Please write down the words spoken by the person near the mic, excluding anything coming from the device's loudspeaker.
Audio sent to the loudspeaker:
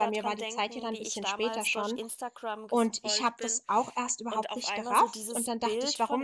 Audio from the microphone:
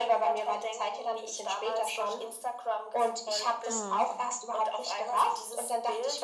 Hm,

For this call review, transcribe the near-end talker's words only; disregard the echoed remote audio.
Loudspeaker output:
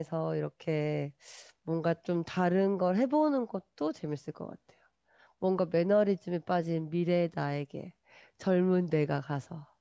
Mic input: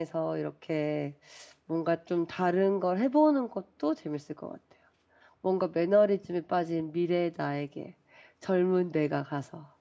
none

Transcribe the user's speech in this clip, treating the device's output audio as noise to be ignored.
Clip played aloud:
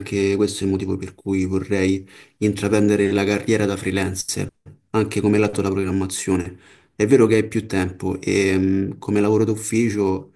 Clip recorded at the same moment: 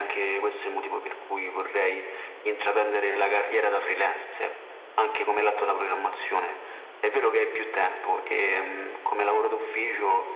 none

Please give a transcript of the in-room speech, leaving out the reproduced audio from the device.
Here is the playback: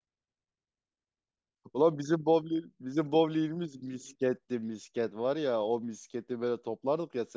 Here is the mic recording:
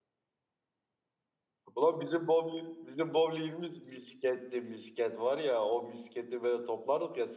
none

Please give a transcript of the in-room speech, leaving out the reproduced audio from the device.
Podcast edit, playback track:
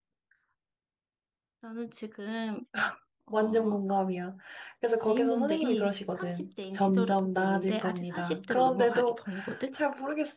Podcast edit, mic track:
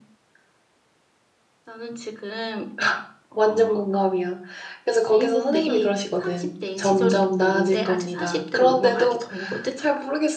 none

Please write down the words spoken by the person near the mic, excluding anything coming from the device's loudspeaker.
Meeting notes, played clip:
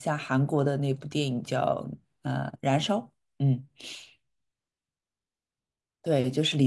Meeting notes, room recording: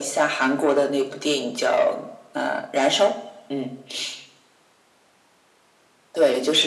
none

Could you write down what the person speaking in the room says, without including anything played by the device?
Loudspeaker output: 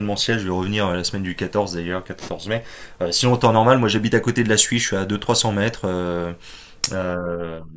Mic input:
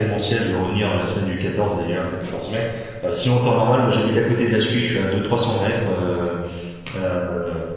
none

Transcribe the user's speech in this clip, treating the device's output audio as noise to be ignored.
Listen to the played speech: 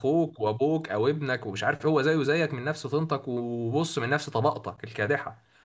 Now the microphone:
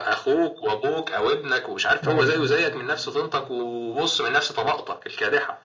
أيوه

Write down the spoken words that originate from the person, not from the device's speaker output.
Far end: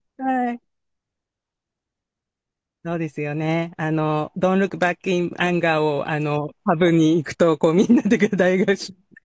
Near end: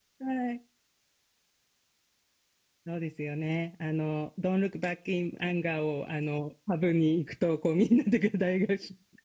none

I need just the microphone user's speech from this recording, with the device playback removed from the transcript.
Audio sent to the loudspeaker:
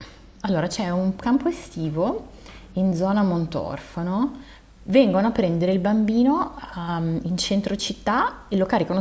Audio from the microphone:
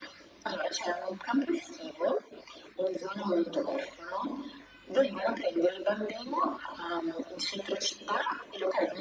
none

